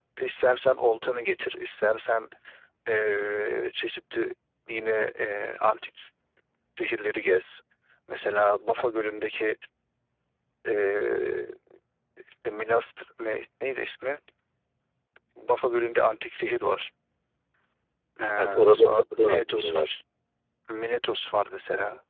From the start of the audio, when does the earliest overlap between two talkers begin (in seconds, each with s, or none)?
18.4 s